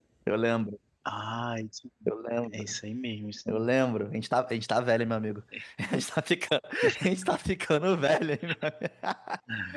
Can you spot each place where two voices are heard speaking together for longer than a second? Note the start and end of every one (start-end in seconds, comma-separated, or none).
none